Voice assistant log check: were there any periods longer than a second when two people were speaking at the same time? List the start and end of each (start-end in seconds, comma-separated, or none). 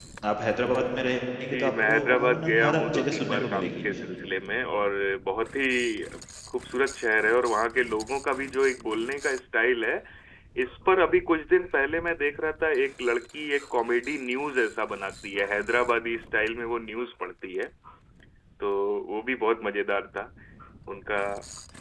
1.5-3.8